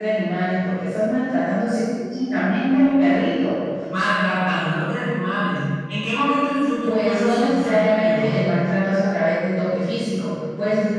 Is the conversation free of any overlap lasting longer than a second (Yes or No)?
No